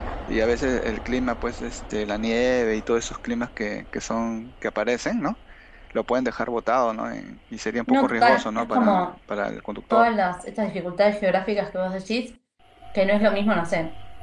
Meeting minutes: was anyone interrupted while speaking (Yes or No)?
Yes